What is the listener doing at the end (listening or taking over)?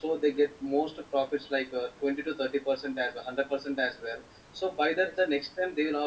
listening